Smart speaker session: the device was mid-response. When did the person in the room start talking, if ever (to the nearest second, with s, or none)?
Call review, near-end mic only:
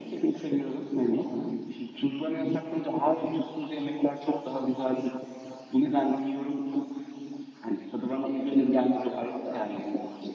none